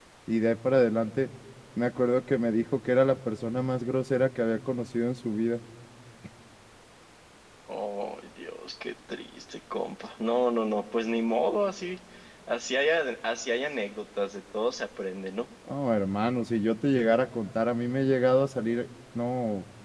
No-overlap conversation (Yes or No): Yes